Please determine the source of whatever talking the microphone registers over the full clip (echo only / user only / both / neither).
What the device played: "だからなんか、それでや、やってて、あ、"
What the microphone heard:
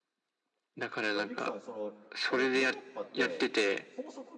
both